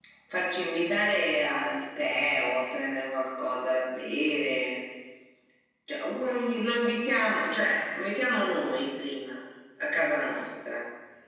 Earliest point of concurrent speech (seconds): none

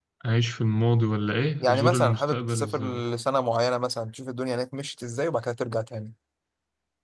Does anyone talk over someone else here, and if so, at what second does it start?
1.6 s

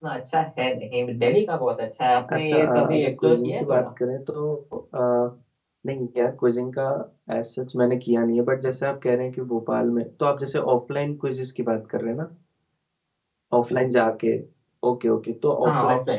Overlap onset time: 2.3 s

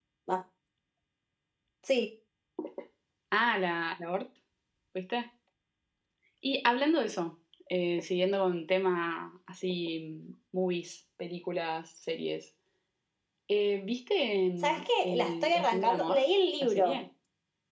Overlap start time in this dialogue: 14.6 s

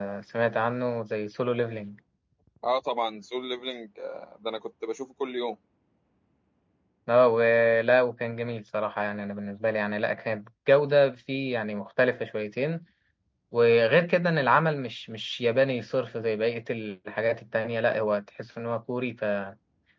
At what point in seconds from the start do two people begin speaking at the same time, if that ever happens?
none

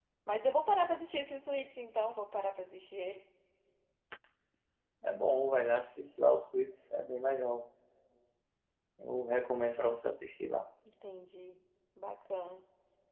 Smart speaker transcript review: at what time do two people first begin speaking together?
none

